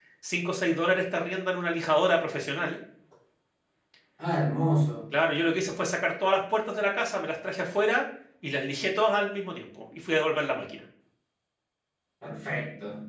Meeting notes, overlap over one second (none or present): none